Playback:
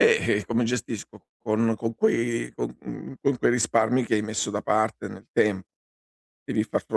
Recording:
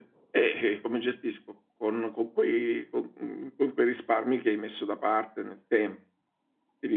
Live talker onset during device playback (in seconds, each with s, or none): none